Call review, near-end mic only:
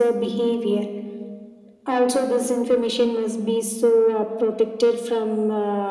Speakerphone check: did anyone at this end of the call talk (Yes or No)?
No